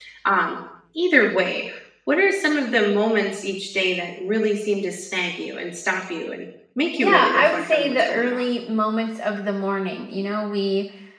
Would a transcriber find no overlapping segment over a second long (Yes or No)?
No